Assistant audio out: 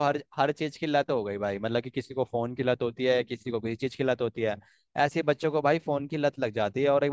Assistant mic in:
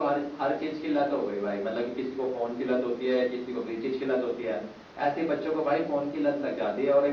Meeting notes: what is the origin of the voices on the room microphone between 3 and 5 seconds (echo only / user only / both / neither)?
echo only